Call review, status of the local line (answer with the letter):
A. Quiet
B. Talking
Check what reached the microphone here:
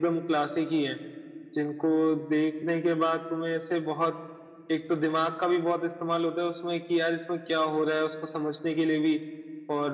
A